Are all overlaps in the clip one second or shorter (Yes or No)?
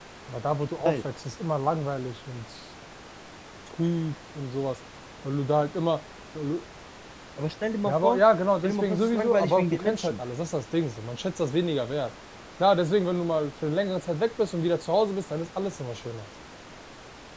No